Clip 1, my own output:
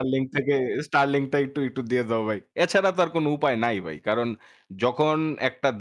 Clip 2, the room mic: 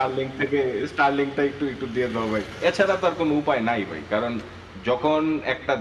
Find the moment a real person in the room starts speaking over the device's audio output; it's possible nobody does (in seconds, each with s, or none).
none